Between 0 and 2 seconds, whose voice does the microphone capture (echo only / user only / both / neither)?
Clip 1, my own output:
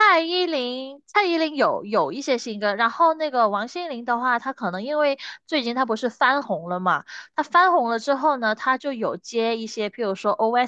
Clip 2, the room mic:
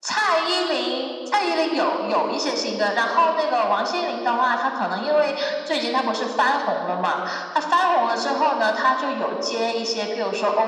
echo only